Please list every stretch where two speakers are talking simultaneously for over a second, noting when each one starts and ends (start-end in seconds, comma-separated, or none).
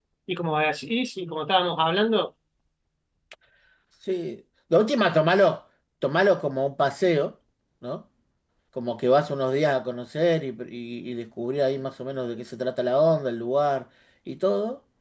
none